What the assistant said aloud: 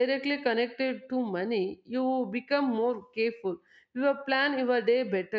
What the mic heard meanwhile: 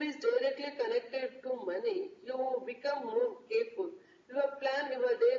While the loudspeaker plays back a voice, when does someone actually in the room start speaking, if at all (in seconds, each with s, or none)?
none